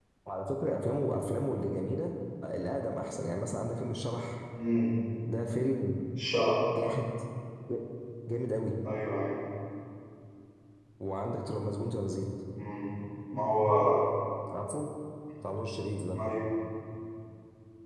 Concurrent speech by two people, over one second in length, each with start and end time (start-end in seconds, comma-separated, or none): none